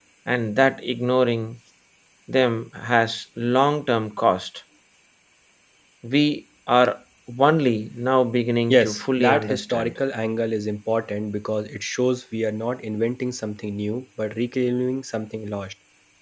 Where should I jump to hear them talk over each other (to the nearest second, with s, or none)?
9 s